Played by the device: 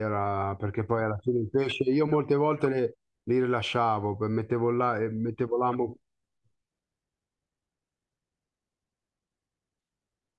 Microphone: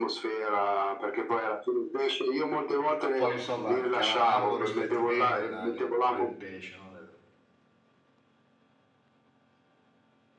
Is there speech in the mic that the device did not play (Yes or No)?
Yes